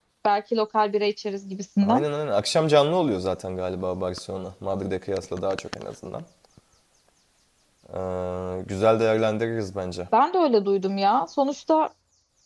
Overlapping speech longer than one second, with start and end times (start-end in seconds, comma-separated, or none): none